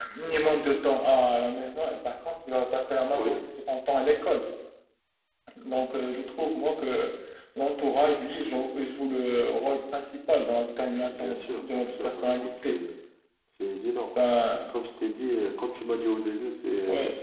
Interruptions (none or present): present